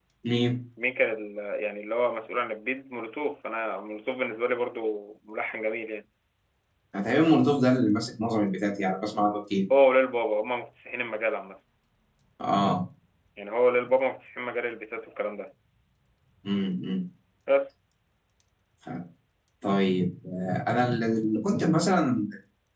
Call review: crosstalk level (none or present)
none